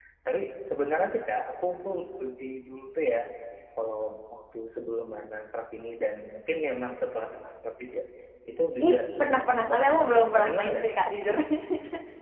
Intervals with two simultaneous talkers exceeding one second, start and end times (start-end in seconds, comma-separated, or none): 8.8-10.9